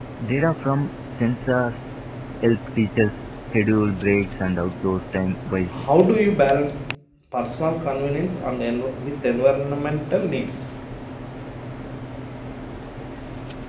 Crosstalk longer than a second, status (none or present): none